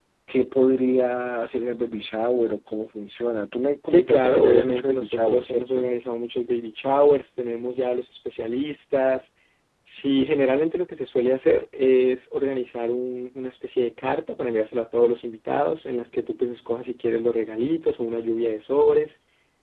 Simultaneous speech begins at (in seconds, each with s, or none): 3.9 s